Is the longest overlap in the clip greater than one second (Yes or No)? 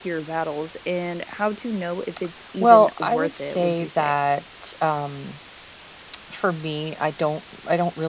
Yes